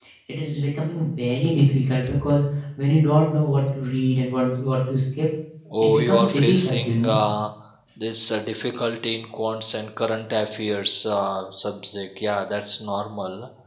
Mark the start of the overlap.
5.8 s

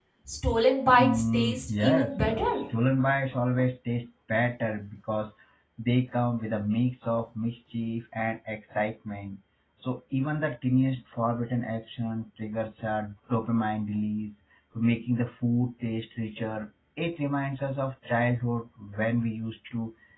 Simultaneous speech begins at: 1.0 s

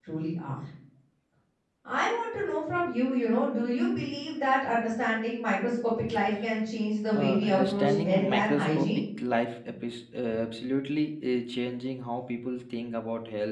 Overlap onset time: 7.1 s

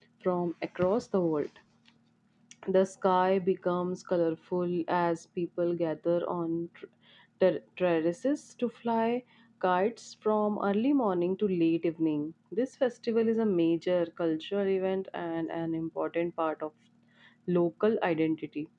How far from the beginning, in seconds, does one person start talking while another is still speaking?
none

